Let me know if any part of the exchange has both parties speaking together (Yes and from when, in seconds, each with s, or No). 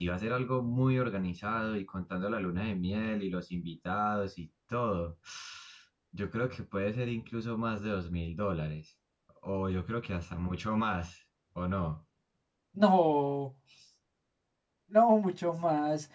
No